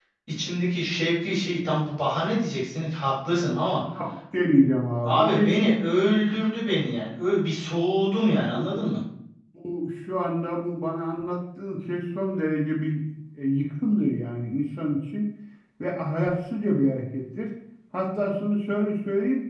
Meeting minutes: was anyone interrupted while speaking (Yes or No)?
Yes